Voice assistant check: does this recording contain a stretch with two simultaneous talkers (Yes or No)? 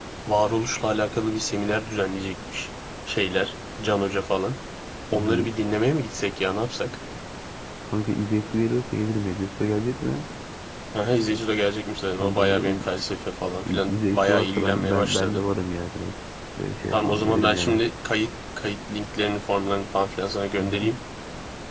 Yes